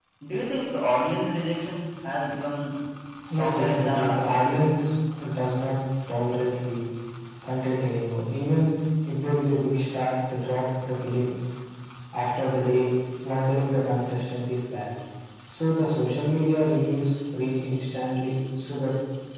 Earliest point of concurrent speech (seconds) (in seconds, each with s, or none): 3.3 s